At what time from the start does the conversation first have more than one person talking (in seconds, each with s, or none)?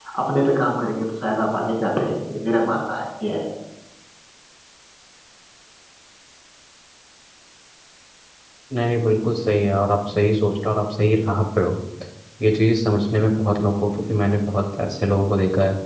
none